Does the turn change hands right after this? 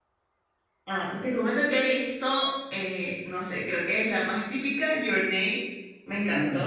No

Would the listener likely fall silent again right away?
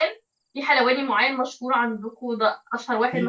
No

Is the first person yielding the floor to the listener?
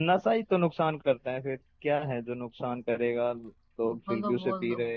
Yes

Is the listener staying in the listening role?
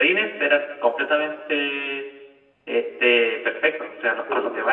Yes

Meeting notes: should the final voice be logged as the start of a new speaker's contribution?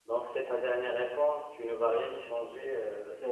Yes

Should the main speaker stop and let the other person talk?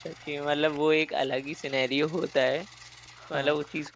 No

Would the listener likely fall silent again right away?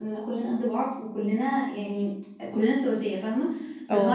Yes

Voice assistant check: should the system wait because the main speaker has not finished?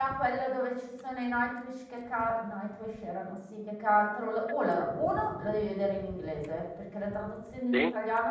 Yes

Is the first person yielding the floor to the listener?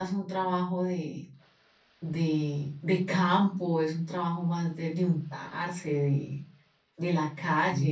No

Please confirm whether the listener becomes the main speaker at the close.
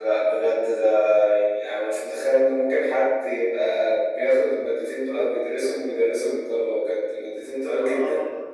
Yes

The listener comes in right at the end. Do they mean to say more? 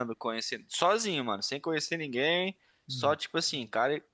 No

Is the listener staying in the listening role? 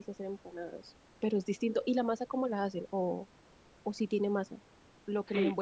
No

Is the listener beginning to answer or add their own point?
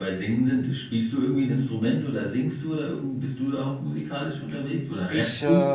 Yes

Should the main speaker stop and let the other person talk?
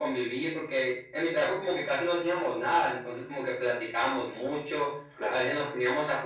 No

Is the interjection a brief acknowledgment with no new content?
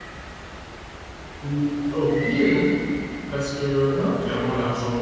Yes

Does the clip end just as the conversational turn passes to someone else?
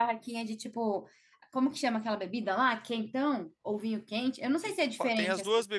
Yes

